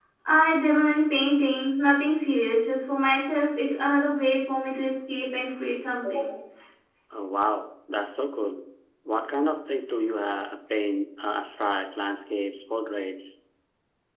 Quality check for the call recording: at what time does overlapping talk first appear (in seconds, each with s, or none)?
none